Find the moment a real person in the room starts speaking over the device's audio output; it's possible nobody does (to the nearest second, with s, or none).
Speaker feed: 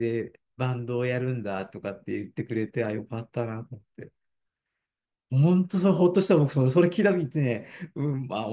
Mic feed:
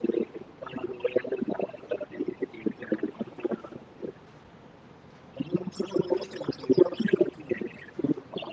none